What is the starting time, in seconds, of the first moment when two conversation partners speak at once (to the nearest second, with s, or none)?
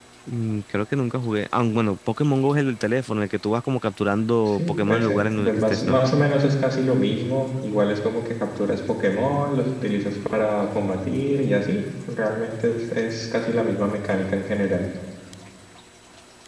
4 s